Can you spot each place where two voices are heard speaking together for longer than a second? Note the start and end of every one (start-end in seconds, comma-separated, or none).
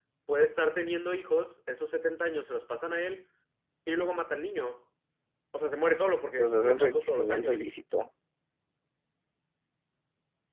6.4-7.7